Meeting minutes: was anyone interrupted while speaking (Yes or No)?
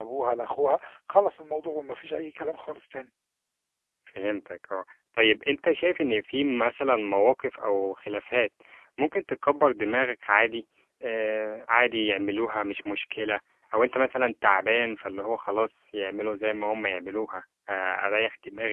No